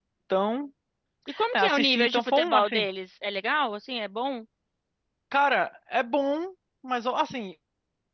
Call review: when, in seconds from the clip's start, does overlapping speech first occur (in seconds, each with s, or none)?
1.5 s